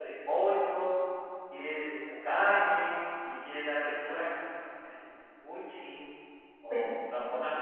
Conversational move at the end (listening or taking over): listening